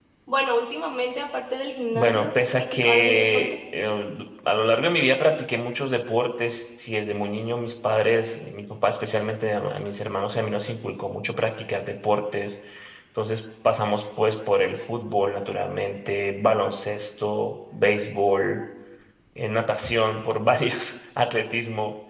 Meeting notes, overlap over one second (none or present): present